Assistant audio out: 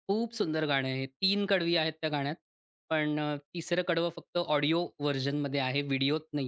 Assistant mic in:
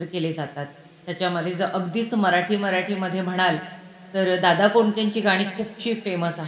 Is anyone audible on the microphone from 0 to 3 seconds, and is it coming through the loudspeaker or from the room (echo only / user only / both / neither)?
user only